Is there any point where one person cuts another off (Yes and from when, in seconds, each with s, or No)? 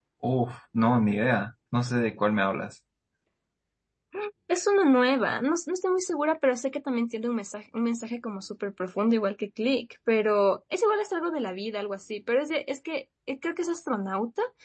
No